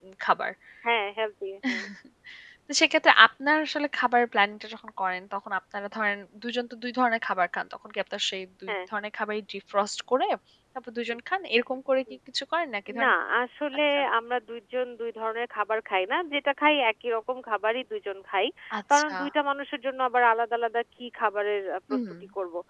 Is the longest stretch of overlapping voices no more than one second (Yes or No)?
Yes